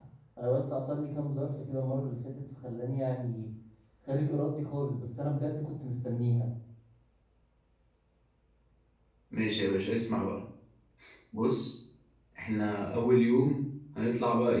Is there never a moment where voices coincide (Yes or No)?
Yes